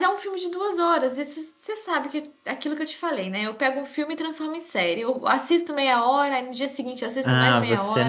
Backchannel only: No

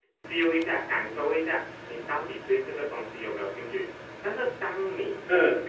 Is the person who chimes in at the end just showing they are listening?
Yes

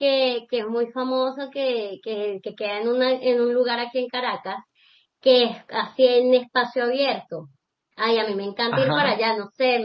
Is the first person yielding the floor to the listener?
No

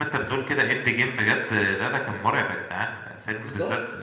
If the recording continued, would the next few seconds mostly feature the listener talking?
No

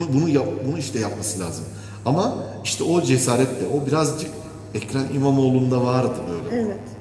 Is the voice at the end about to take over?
No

